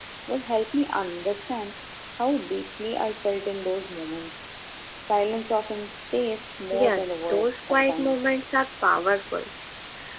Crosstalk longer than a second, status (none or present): present